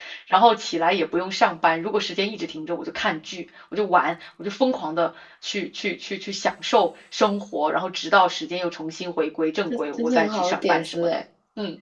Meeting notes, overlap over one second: present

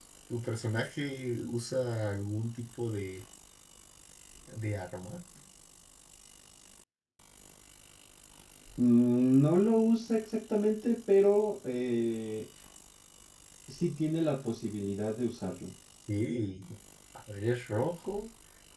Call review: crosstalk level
none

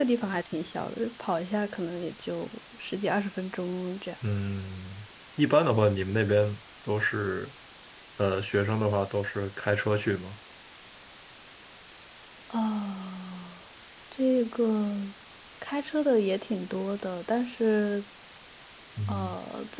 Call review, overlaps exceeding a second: none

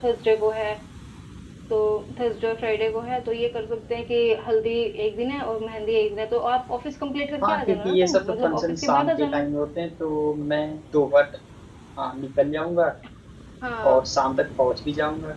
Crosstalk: present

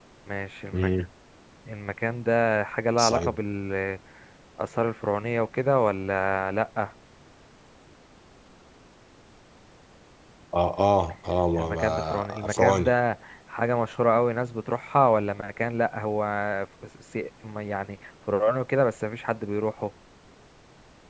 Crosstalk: present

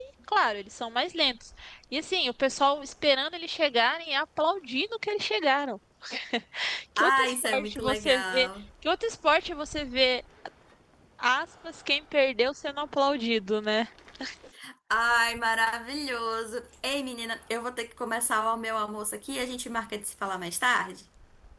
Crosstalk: present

